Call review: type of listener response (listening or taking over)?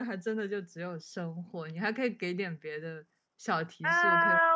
taking over